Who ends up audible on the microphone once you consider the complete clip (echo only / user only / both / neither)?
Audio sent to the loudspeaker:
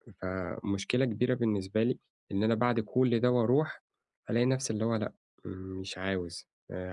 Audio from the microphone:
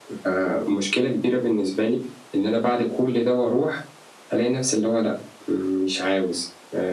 echo only